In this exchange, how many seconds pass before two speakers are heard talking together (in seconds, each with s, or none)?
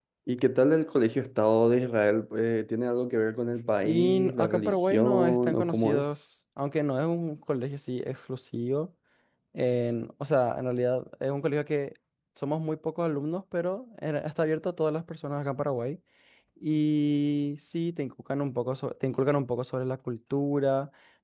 3.8 s